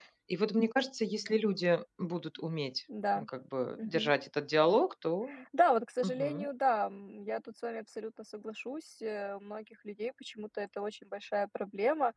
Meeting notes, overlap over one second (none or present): none